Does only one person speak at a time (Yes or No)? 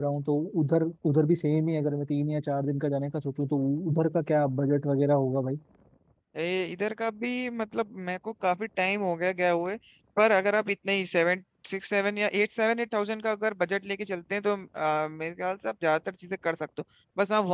Yes